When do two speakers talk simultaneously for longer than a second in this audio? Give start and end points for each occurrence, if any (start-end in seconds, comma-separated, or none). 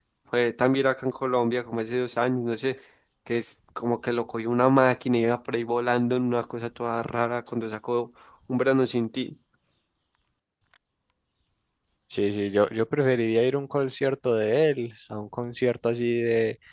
none